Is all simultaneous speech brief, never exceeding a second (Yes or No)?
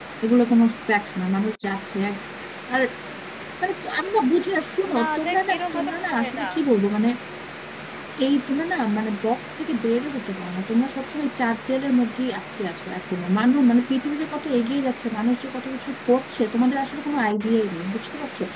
No